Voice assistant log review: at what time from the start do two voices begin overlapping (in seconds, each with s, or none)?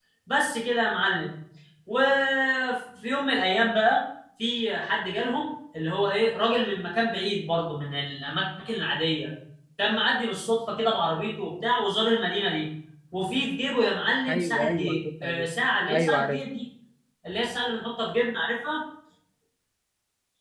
14.3 s